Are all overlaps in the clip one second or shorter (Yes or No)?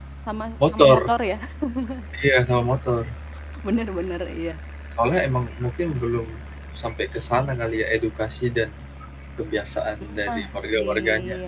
No